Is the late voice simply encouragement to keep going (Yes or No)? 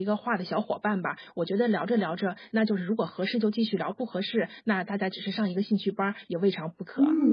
No